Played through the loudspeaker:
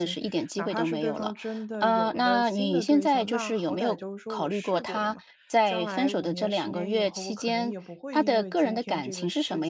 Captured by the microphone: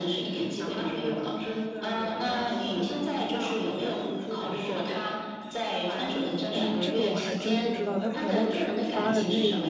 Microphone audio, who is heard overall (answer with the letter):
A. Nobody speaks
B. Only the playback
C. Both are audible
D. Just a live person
C